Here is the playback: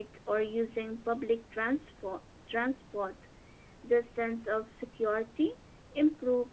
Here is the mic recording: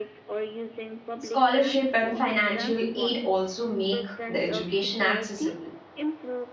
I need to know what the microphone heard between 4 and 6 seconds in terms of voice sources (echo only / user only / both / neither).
both